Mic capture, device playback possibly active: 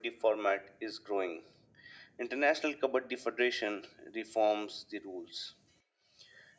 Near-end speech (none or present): none